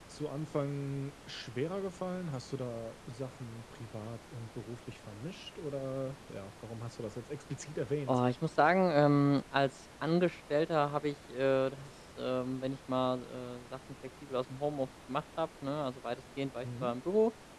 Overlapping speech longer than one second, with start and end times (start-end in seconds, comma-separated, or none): none